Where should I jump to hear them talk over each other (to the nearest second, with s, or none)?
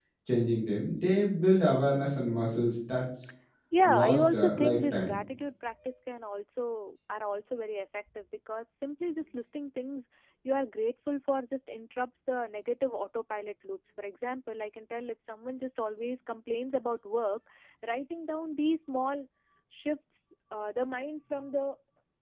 4 s